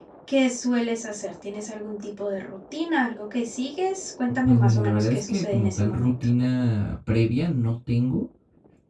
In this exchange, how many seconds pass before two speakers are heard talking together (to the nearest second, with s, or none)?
4 s